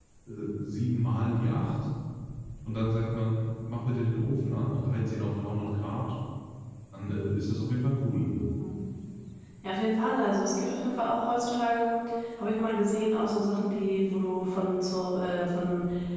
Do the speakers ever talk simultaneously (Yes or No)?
No